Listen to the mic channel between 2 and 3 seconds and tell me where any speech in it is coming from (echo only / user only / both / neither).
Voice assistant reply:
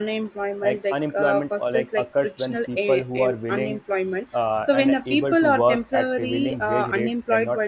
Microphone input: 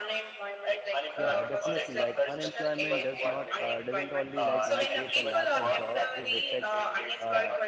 both